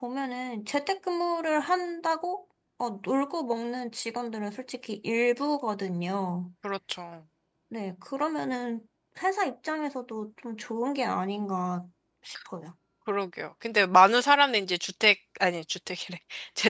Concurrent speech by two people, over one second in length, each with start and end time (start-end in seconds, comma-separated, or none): none